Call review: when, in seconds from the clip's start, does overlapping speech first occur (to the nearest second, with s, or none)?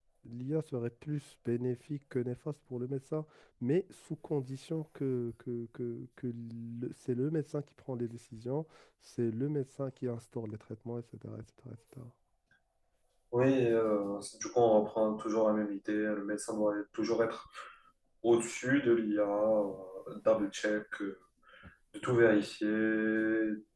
none